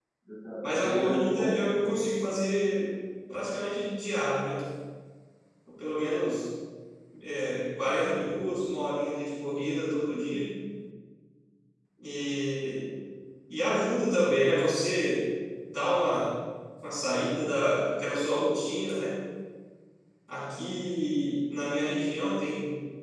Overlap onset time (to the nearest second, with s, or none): 1 s